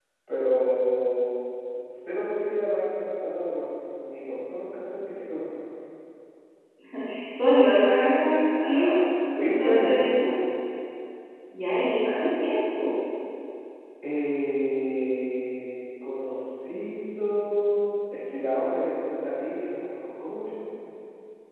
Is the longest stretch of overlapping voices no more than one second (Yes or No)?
Yes